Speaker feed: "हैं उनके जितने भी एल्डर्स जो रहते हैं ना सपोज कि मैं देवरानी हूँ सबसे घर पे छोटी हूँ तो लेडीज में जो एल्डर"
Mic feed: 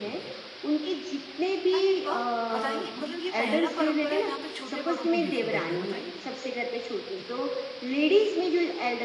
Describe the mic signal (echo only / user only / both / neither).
both